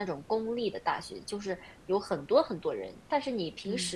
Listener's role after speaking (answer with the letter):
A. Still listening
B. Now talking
A